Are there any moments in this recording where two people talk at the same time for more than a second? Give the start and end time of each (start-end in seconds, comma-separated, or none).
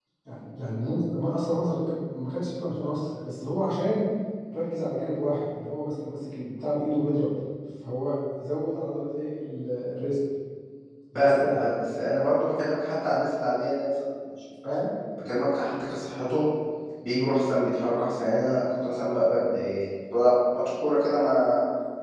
none